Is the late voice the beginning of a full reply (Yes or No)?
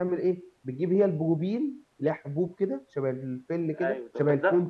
Yes